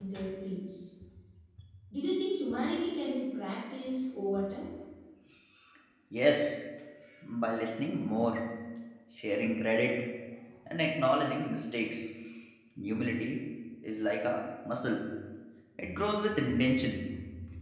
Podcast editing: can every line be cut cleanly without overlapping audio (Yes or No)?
Yes